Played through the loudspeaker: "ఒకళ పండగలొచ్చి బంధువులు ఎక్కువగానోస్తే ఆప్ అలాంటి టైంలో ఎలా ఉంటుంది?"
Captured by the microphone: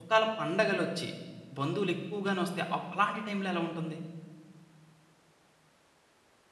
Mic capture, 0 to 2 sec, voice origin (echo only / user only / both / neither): echo only